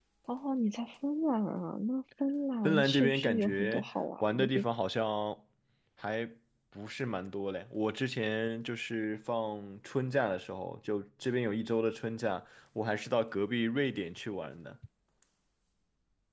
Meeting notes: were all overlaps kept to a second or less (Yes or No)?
No